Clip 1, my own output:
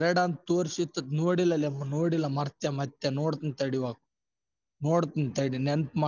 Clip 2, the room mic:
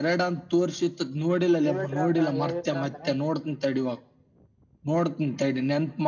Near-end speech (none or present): present